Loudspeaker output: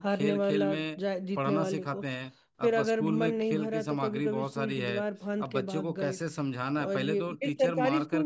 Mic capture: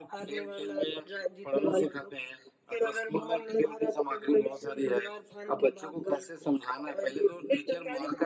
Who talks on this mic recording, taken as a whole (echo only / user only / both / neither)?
echo only